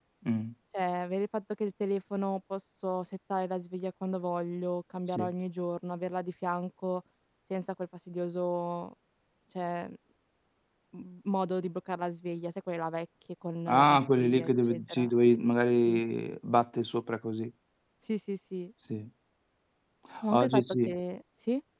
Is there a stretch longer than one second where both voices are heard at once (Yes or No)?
Yes